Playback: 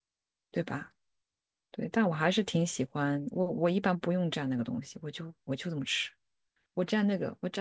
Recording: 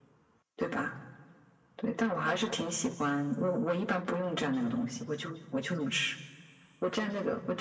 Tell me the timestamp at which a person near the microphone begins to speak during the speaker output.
none

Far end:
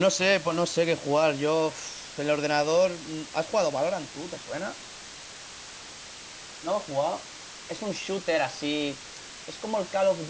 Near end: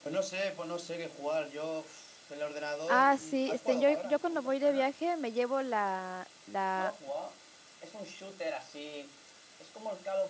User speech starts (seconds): 2.9 s

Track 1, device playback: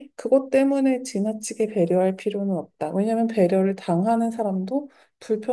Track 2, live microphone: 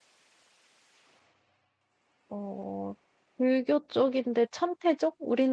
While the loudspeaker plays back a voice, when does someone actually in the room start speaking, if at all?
2.3 s

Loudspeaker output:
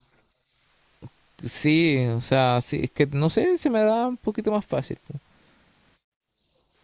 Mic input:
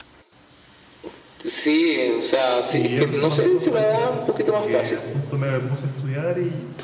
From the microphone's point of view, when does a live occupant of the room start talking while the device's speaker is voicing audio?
2.6 s

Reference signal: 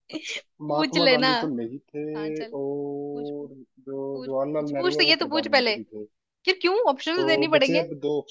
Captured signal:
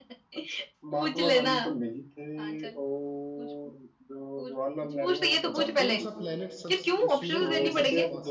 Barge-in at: 5.5 s

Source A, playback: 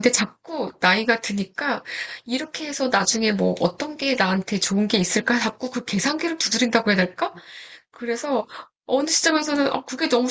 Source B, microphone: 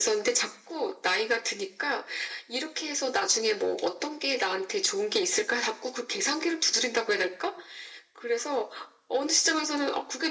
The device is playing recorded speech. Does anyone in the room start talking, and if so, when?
none

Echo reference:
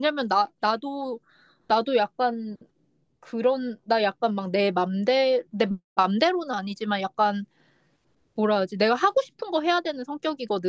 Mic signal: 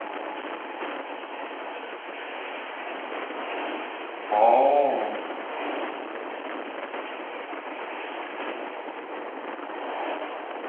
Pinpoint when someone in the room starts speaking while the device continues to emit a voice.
4.3 s

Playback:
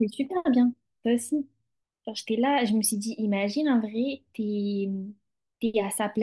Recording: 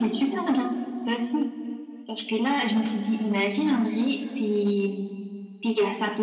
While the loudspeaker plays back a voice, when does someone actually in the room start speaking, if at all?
none

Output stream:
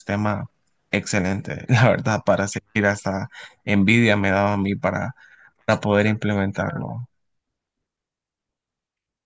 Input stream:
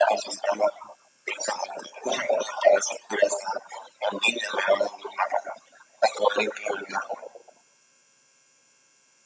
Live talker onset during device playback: none

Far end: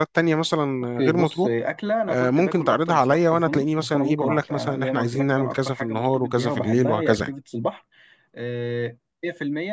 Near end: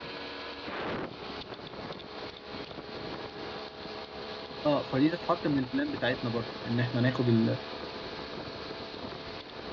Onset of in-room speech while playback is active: 4.6 s

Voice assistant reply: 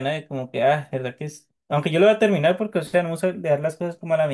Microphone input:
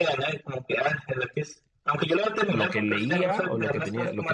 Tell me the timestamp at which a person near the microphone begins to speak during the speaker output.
2.5 s

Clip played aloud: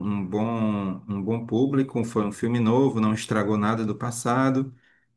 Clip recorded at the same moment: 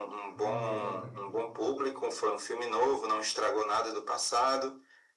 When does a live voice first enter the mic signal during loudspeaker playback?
0.3 s

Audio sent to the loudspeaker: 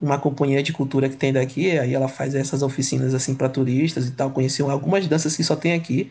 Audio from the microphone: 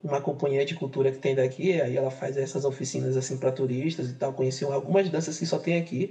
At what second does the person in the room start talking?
none

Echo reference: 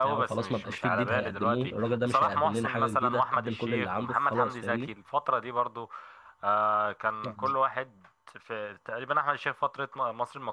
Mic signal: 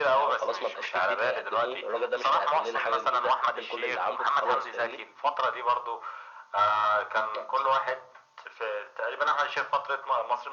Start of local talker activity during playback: none

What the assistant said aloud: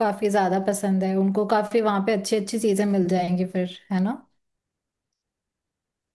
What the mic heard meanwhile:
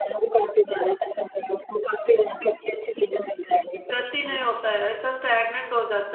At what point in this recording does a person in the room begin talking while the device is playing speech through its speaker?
3.9 s

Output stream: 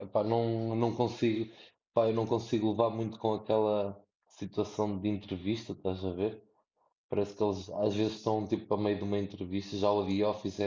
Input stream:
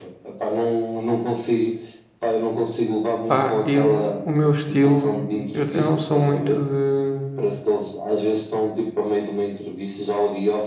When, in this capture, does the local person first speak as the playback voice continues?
3.3 s

